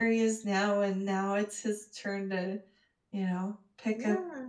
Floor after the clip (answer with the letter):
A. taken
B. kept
A